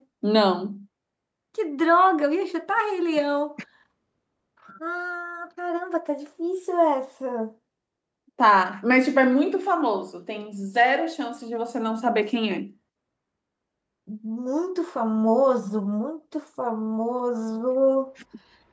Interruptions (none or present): none